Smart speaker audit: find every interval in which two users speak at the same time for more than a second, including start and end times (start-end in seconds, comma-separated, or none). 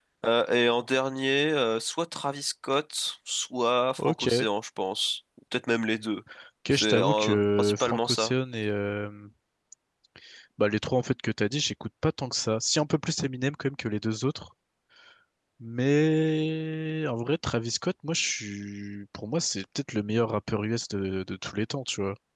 6.7-8.3